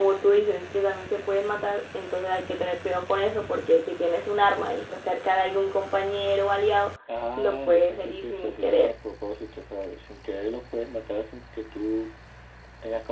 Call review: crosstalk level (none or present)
present